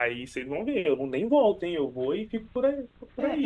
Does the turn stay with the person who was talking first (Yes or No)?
No